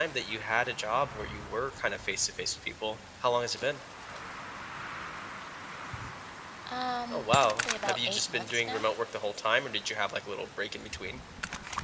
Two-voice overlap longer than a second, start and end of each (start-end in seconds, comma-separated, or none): 7.1-8.9